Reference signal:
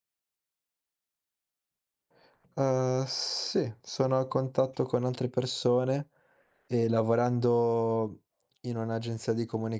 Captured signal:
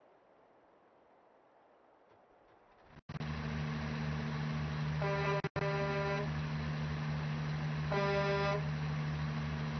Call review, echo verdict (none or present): none